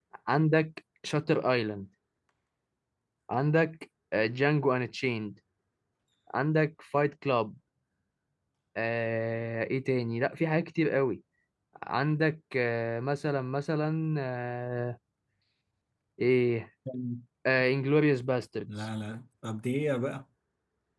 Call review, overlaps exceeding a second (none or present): none